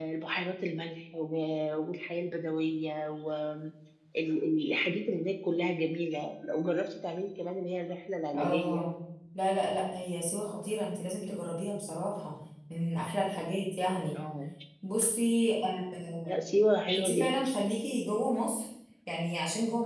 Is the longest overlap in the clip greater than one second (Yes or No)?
No